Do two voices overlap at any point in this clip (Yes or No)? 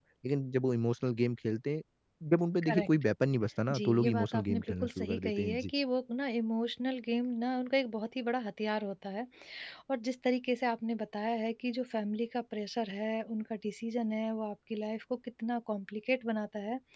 Yes